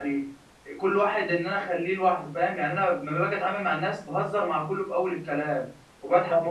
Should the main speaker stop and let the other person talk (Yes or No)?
Yes